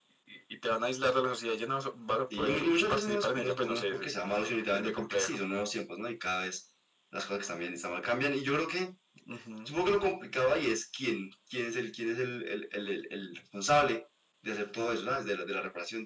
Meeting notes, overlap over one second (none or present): present